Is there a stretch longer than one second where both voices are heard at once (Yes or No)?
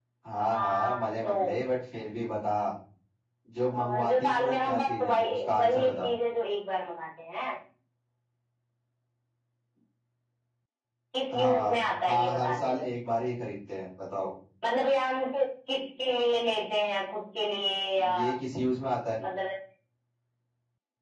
Yes